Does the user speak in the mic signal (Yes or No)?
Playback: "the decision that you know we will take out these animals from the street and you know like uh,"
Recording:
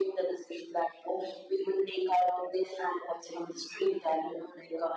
No